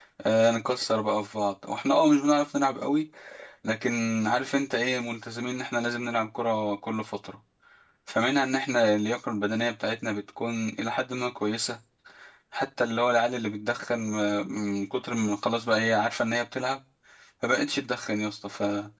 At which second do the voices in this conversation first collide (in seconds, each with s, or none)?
none